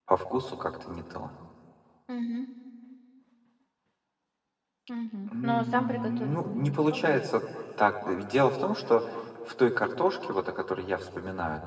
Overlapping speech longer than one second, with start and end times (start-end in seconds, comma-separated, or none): 5.4-7.2